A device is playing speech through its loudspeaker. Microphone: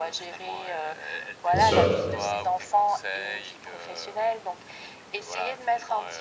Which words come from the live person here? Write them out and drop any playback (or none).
bien sûr.